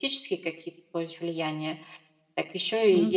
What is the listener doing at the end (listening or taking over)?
listening